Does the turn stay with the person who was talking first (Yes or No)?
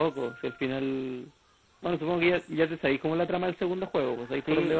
No